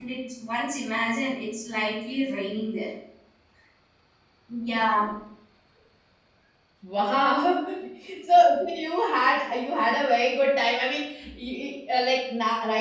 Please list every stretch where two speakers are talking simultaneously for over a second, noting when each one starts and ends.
none

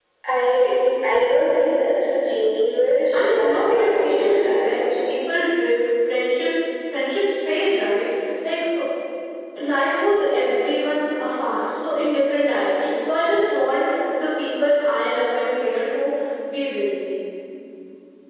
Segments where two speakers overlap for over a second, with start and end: 3.1-4.8

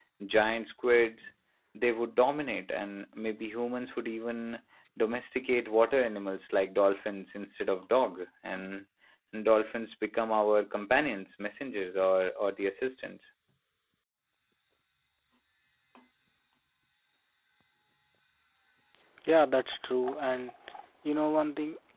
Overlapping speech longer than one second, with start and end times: none

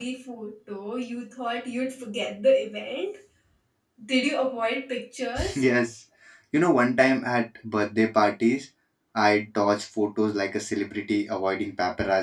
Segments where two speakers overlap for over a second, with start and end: none

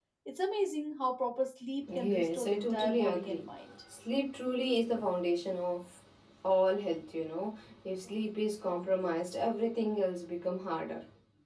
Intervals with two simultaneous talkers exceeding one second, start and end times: 2.0-3.4

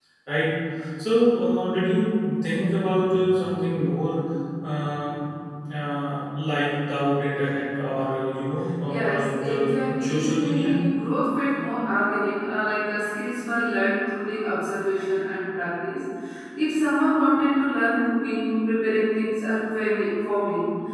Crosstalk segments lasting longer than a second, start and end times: 8.9-10.7

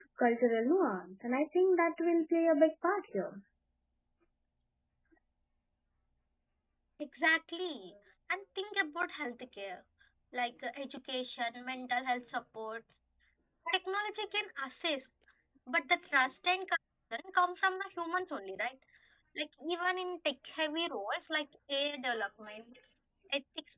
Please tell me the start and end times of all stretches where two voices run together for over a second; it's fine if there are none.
none

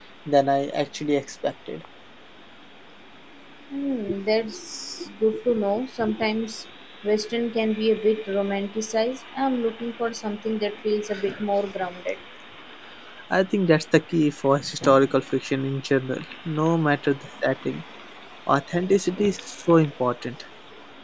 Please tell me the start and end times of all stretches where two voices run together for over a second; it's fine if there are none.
none

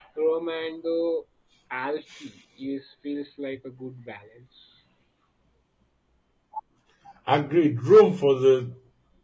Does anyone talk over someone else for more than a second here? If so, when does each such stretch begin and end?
none

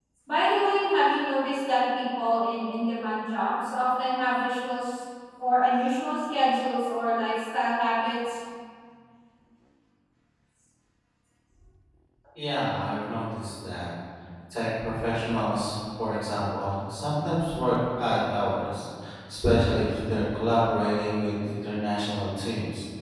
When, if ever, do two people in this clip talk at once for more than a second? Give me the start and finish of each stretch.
none

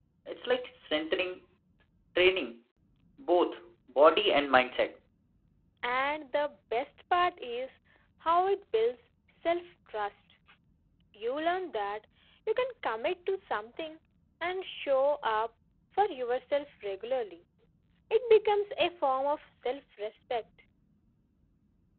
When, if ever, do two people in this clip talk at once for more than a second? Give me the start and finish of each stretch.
none

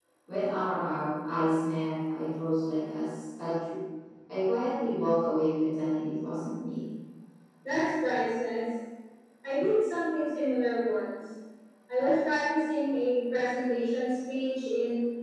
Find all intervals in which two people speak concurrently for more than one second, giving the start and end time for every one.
none

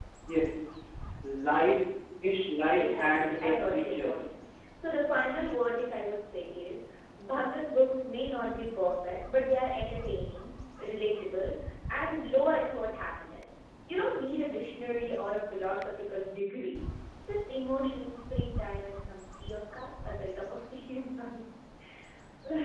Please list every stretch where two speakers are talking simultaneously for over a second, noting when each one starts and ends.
2.8-4.1

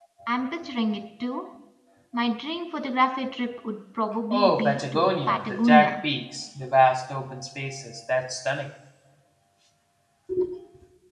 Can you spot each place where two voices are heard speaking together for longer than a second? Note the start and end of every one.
4.3-6.0

